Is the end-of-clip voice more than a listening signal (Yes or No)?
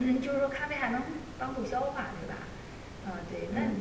Yes